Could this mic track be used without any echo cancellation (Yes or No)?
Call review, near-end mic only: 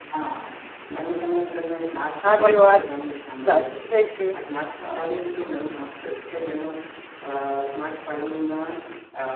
No